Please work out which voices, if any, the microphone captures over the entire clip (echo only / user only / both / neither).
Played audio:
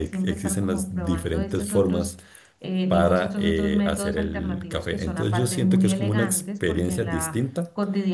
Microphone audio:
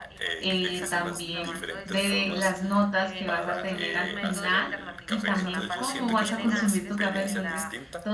both